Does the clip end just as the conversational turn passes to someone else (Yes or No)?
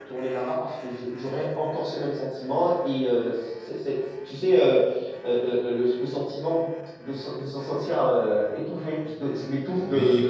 Yes